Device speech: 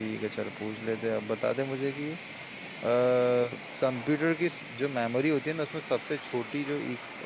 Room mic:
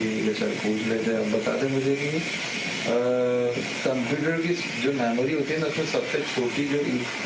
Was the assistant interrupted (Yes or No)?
No